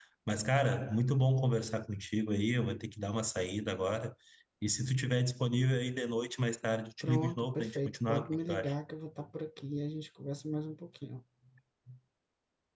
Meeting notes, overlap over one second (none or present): present